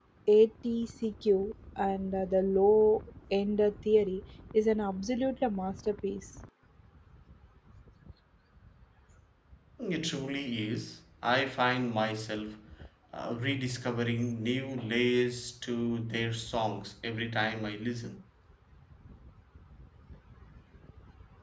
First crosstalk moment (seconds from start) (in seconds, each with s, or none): none